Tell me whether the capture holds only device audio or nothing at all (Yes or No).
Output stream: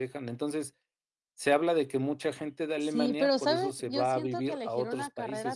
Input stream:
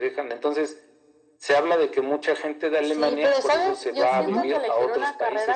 No